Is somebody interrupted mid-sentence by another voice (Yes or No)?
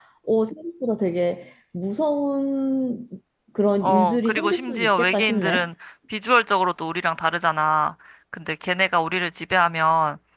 Yes